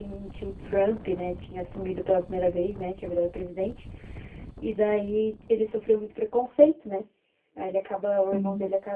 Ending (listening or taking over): listening